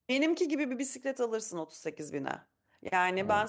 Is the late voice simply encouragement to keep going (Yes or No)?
Yes